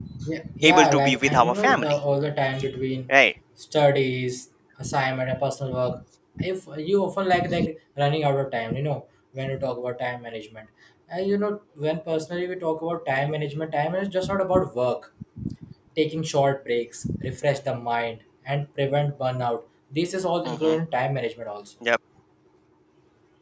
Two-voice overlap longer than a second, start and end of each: 0.6-1.9

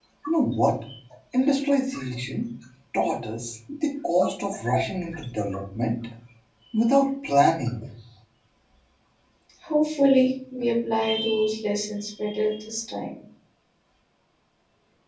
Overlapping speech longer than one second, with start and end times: none

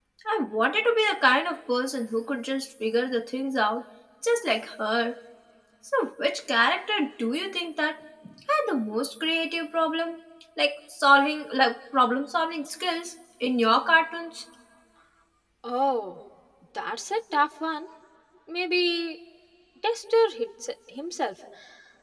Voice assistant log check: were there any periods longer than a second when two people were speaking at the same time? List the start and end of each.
none

